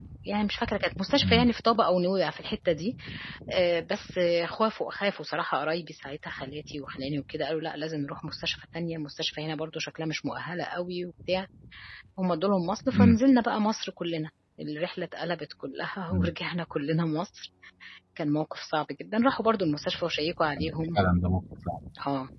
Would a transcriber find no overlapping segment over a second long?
Yes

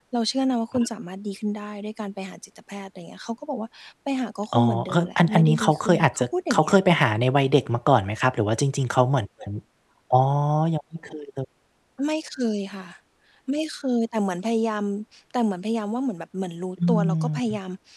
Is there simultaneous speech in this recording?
Yes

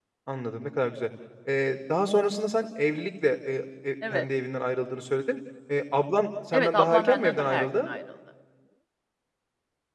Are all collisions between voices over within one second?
No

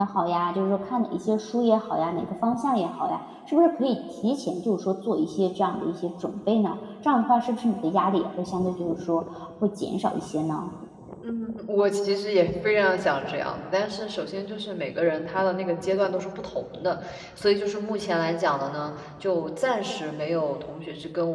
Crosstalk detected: No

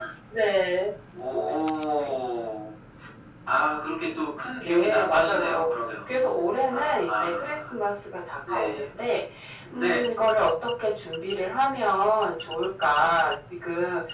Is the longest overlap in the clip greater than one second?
Yes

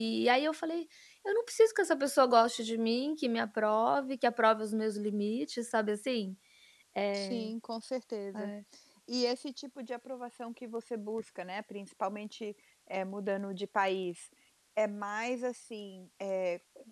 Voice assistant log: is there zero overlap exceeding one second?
Yes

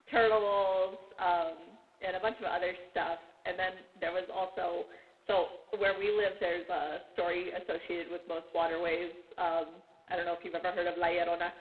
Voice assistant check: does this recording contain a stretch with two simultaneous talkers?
No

